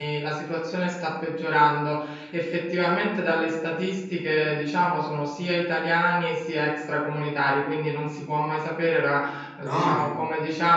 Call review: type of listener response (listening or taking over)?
listening